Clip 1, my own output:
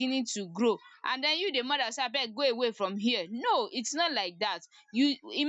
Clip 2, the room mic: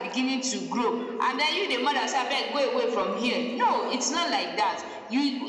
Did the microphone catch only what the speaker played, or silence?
Yes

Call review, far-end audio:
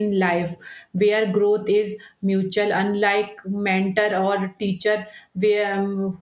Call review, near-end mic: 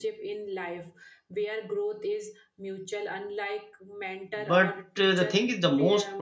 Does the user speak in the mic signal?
Yes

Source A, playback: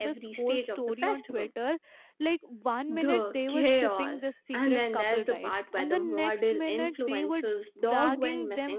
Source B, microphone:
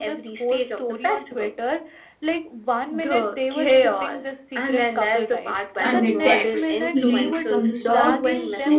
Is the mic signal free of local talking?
No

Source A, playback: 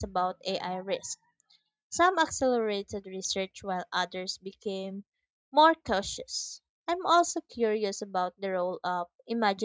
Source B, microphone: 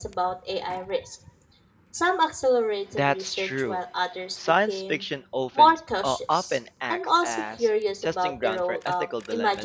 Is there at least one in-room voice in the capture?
Yes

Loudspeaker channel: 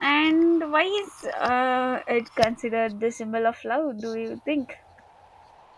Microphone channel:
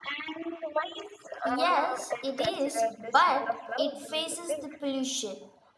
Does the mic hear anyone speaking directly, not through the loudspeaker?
Yes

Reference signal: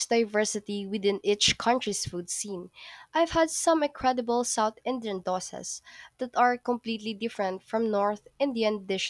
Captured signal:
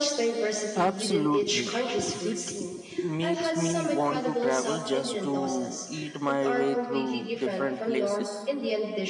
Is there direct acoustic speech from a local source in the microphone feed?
Yes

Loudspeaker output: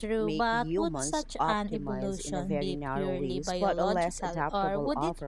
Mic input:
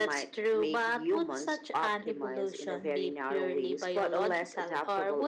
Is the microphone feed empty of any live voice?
Yes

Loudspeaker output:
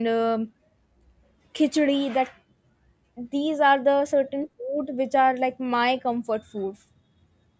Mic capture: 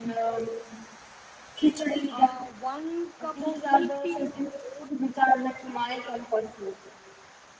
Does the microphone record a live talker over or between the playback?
Yes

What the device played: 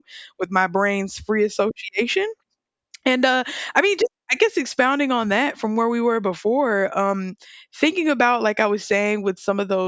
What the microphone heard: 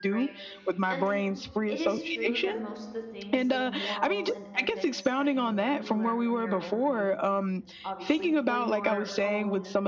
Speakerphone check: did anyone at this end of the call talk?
Yes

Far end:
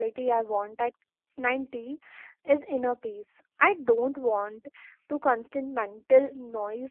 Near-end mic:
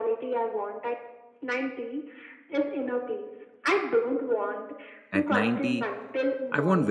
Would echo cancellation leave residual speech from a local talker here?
Yes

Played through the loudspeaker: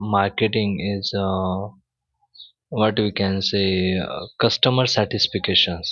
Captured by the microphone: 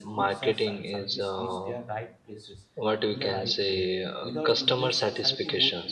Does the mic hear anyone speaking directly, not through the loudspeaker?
Yes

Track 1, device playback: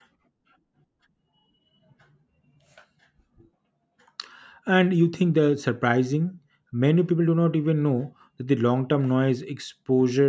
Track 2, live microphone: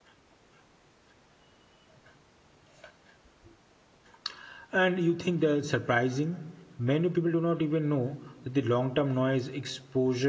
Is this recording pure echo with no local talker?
Yes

